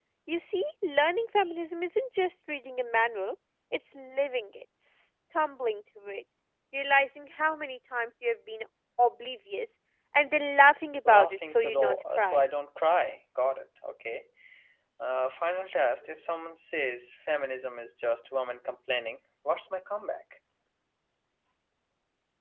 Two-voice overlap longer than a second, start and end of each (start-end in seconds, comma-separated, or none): 11.1-12.4